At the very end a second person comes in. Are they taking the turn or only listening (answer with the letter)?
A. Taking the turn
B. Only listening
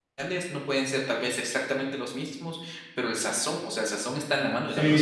A